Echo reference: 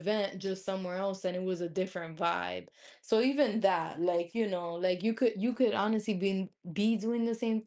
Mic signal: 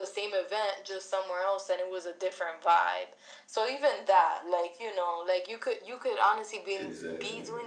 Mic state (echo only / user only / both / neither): both